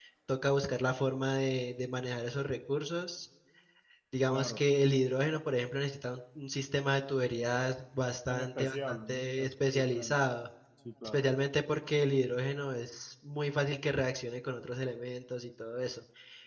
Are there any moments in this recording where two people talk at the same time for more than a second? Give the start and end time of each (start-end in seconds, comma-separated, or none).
8.3-10.1